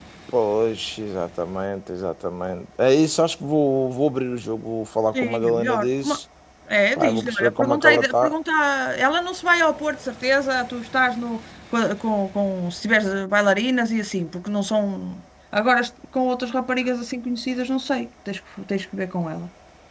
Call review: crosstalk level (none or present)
present